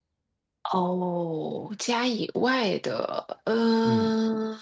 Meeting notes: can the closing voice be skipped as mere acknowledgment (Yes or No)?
No